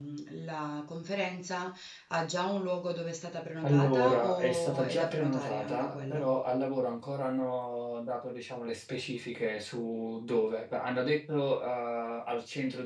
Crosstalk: present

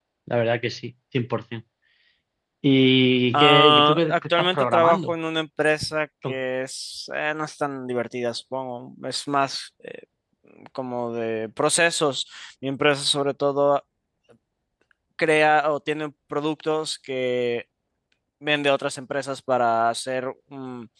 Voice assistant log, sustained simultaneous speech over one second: present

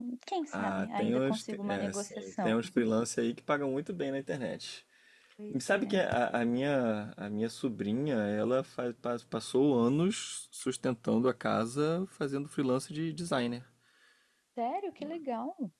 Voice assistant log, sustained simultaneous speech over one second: present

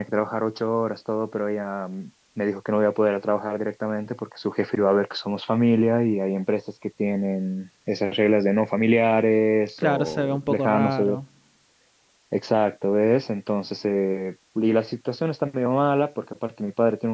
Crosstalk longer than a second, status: present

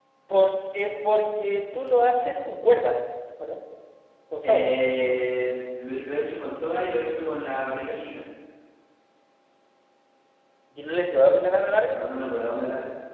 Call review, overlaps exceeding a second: none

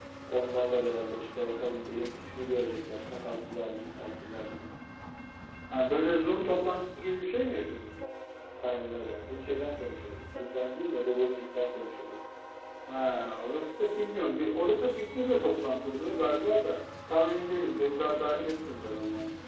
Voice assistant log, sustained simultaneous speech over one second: none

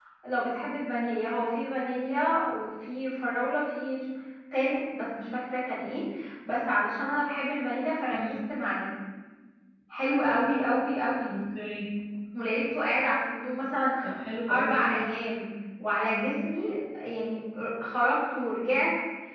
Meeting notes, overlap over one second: none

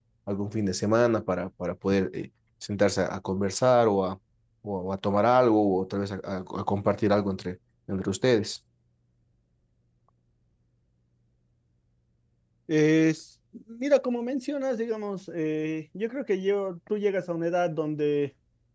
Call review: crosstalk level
none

